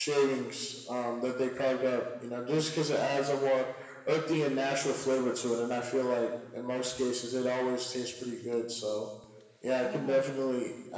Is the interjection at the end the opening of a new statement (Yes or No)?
No